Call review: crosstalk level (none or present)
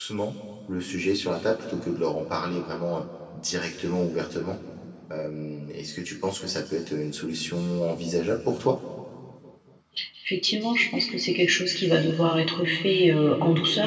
none